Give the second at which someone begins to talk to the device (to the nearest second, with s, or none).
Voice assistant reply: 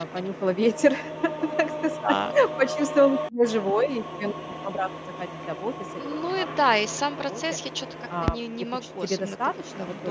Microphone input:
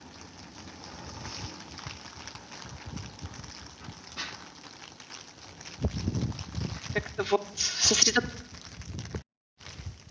7 s